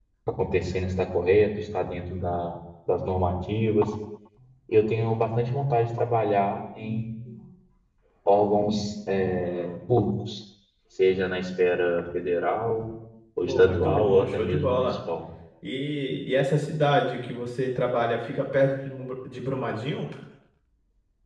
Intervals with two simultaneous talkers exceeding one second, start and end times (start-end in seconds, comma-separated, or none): 13.5-14.9